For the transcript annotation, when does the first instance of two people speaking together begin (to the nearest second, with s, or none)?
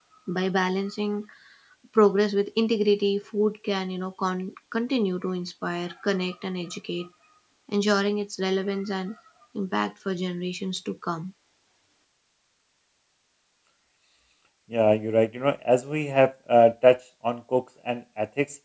none